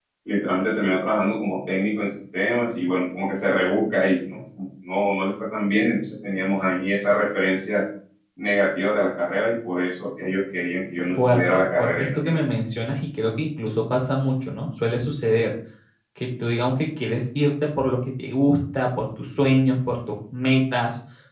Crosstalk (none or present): present